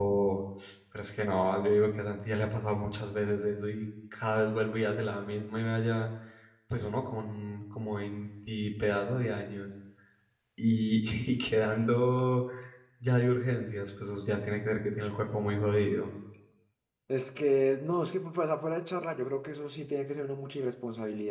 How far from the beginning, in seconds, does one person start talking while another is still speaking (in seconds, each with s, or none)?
none